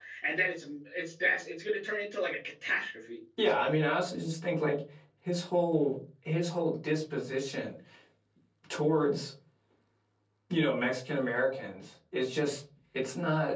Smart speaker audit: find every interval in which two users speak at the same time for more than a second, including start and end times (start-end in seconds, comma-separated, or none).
none